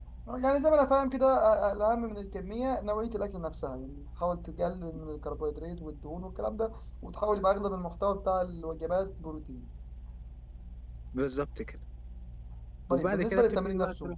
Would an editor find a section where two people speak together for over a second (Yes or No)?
Yes